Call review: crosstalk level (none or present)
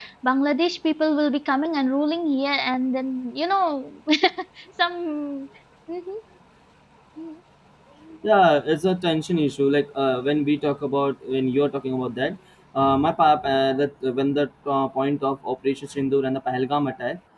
none